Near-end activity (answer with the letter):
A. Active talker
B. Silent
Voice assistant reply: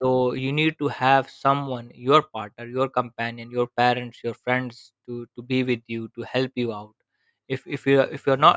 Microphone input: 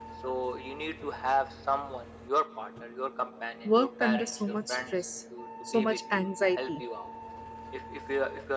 A